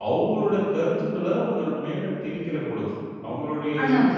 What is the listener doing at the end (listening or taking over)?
listening